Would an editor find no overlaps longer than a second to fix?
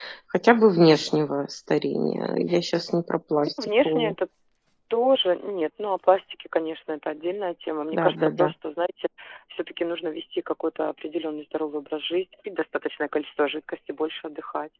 Yes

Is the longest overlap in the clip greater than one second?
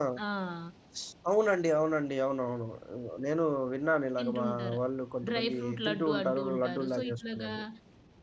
Yes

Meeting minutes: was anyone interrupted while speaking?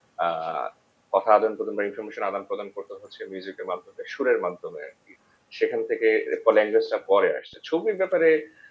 No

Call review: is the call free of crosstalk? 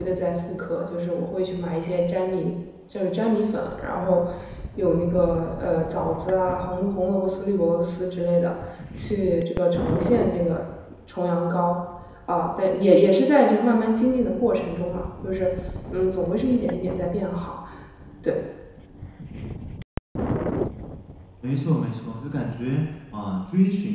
Yes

